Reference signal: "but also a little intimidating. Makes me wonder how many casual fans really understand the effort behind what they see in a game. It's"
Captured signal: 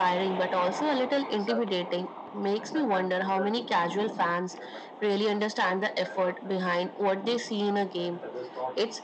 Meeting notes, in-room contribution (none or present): present